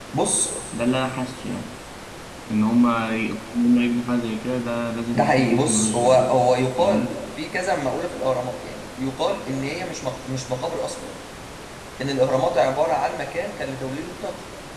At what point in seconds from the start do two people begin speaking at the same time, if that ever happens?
5.1 s

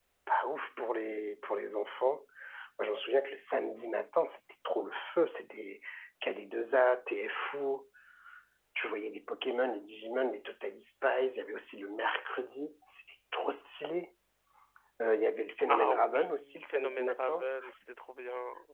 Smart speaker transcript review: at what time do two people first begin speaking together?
15.7 s

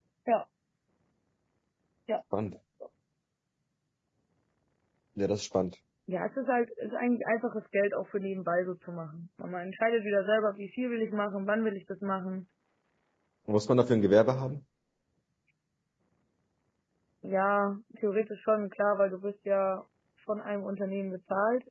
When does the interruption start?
none

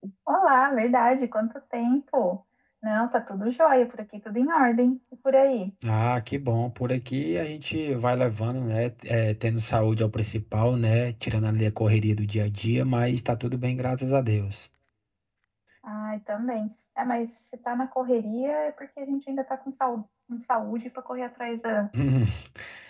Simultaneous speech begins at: none

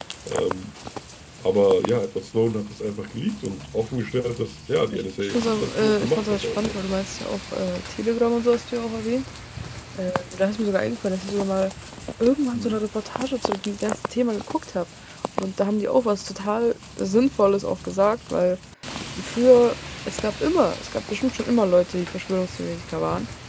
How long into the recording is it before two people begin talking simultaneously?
4.9 s

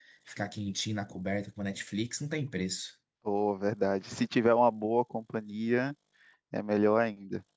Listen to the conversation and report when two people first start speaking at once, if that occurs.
none

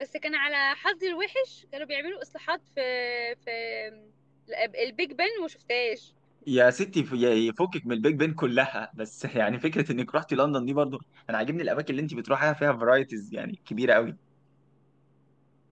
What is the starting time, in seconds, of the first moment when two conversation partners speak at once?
none

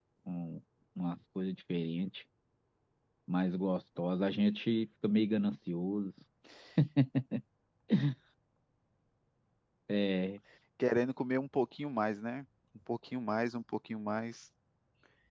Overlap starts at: none

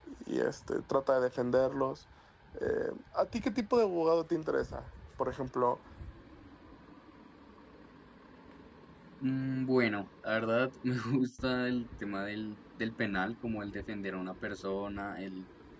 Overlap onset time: none

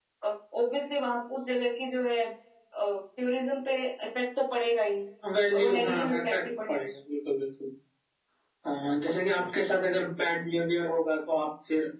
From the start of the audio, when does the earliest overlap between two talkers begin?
5.5 s

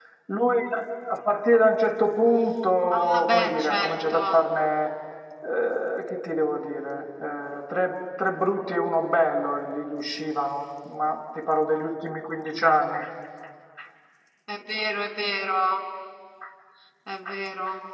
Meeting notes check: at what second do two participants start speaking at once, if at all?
2.9 s

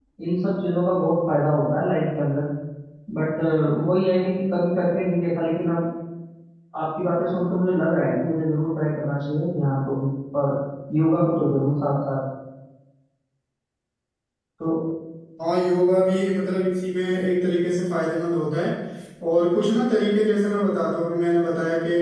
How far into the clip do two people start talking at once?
none

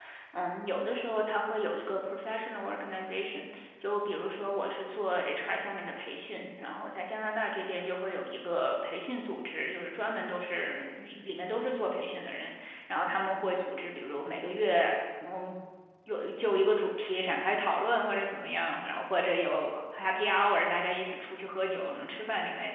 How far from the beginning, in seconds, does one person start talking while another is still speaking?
none

